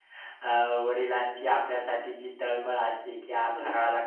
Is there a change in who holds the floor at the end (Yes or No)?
No